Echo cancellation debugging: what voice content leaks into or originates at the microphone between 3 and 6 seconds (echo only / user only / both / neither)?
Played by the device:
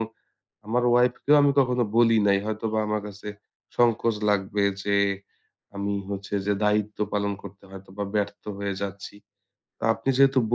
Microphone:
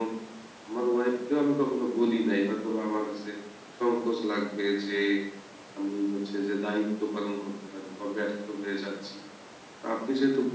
echo only